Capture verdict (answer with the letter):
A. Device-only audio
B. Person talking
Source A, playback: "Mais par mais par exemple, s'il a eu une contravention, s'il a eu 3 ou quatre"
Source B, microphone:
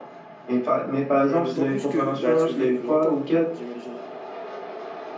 B